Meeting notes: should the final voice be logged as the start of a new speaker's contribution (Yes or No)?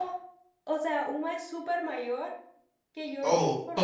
No